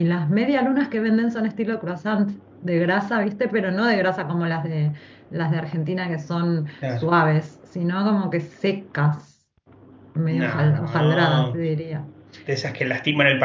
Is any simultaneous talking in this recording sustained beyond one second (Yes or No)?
Yes